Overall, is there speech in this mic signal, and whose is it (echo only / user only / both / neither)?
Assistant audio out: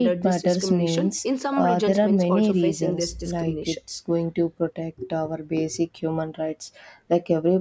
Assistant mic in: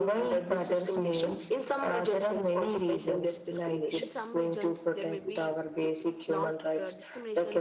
both